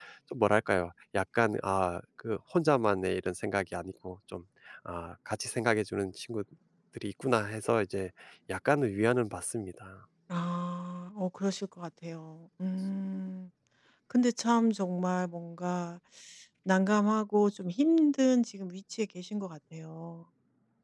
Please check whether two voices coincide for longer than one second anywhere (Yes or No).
No